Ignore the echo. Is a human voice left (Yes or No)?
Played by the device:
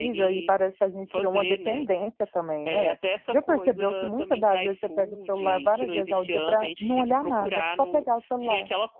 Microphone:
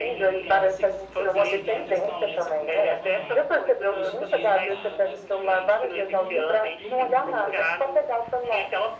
Yes